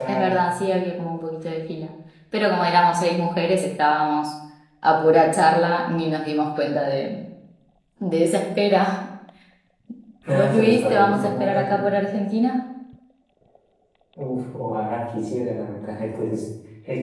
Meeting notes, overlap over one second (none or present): present